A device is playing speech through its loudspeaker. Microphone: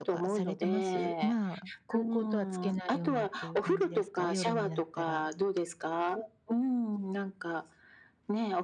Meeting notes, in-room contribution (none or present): present